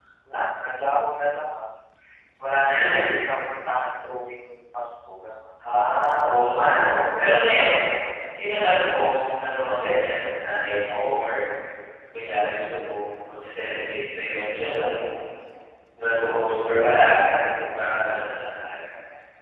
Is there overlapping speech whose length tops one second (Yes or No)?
No